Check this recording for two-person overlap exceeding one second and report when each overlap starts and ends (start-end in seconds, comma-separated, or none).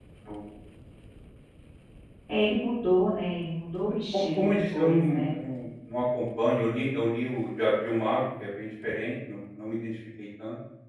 3.8-5.3